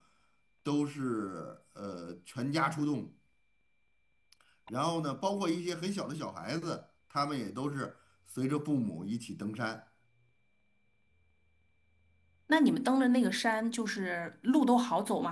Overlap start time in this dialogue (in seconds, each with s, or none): none